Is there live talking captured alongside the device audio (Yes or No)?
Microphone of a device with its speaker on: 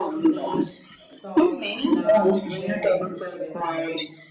Yes